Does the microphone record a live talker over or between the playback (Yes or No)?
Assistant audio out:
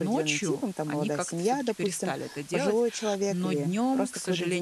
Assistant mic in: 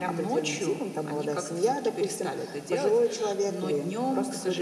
No